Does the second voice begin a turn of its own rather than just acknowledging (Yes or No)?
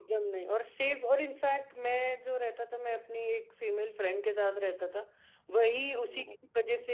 No